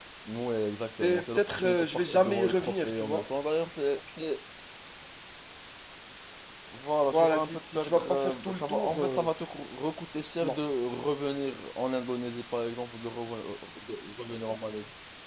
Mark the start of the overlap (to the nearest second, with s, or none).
1 s